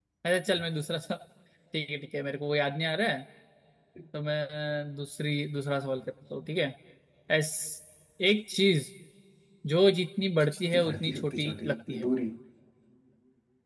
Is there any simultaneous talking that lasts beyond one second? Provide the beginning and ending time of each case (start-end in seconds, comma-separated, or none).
10.5-12.1